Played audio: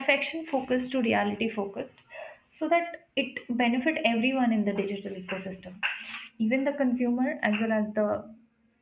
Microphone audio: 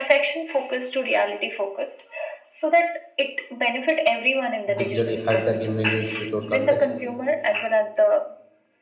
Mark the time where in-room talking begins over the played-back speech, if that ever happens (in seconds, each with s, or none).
4.8 s